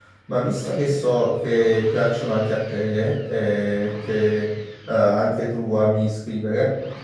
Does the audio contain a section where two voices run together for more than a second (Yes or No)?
No